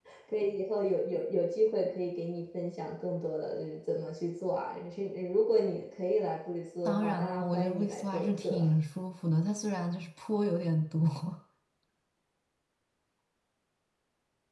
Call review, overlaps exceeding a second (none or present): present